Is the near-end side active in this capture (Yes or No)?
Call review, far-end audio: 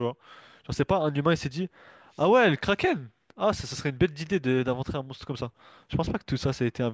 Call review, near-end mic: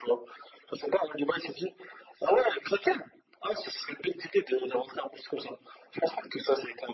No